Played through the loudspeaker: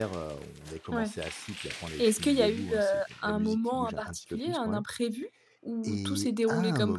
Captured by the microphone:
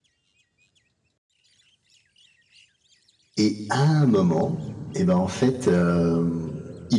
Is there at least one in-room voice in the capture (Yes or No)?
Yes